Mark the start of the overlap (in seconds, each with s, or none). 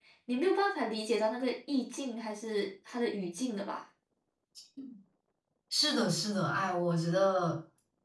none